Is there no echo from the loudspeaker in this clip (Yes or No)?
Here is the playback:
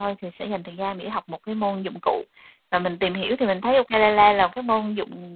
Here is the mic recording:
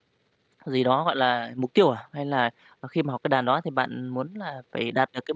Yes